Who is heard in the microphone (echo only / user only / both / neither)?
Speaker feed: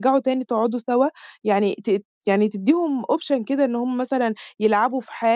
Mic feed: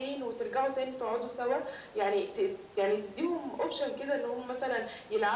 echo only